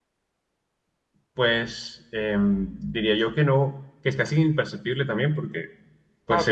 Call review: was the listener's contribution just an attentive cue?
No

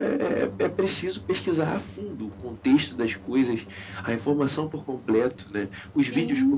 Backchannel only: Yes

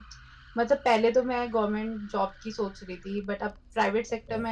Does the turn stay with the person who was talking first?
Yes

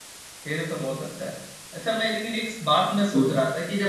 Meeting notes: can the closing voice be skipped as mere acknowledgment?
Yes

